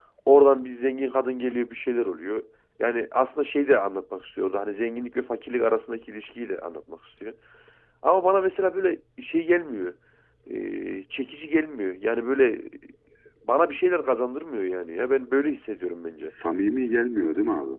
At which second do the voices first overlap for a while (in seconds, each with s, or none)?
none